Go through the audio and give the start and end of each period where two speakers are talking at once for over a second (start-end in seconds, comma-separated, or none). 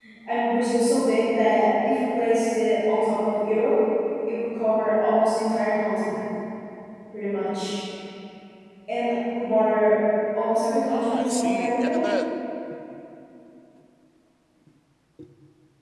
10.8-12.0